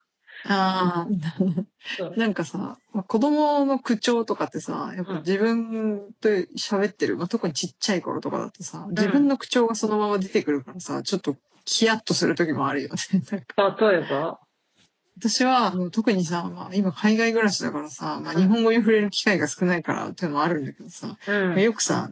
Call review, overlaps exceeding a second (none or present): none